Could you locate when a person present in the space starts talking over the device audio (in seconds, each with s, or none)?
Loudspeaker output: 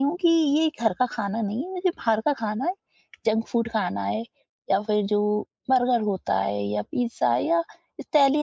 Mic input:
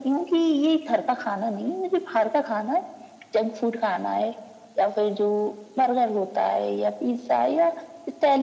none